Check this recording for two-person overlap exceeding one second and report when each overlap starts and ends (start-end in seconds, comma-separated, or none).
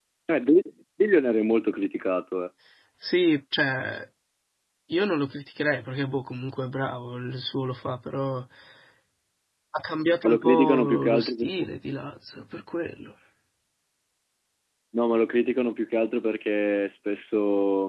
10.2-11.7